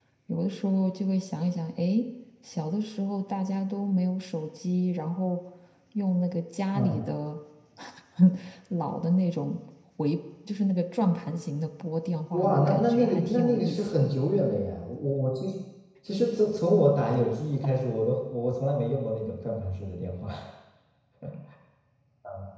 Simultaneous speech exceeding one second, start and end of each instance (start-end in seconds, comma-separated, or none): 12.3-13.9